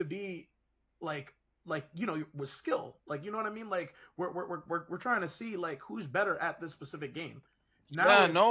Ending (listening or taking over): taking over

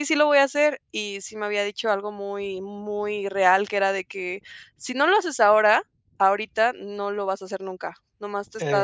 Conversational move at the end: listening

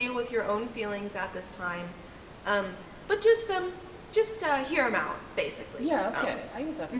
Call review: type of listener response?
taking over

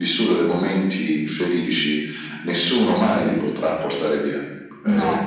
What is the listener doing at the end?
listening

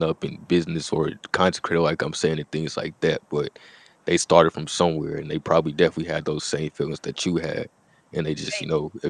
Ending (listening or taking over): listening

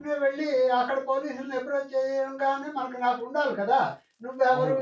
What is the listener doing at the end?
taking over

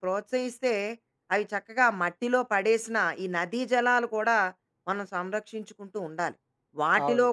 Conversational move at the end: listening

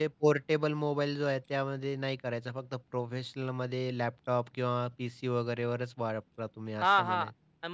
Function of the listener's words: taking over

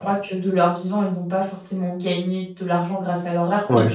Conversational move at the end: listening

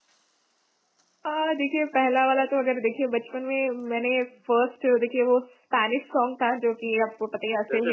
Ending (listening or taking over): listening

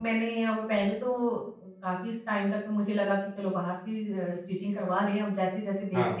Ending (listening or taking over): listening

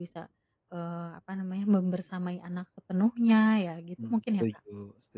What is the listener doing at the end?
taking over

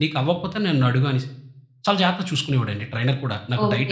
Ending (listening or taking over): taking over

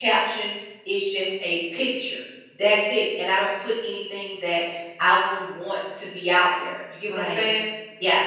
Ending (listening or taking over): taking over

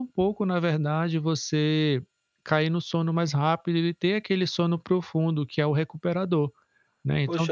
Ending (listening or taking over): taking over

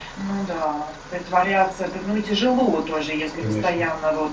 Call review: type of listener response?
listening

